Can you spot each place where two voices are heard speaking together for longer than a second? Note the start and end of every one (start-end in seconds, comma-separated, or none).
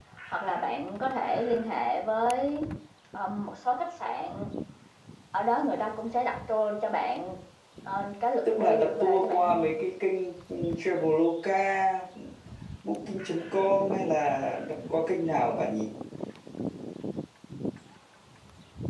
8.4-9.7